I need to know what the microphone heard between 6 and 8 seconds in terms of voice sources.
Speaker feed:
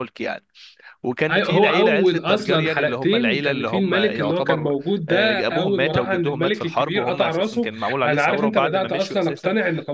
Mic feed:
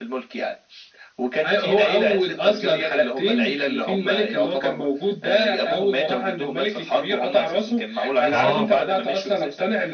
echo only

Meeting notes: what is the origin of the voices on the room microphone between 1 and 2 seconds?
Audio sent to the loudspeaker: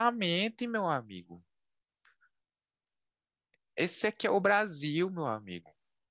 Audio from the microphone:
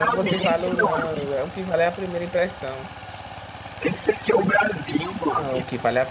both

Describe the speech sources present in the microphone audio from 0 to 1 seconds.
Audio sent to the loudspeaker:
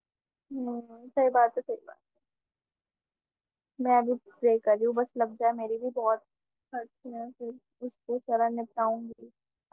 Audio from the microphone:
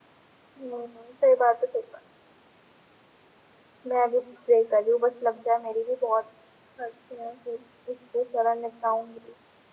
echo only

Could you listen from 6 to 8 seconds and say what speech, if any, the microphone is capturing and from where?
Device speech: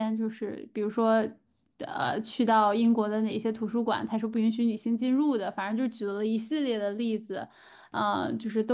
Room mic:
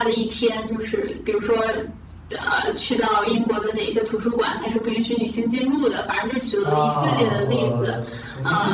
both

